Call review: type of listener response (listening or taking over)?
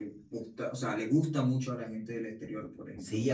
taking over